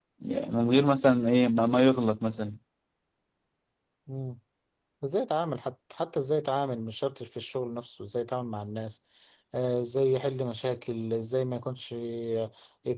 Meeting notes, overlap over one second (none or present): none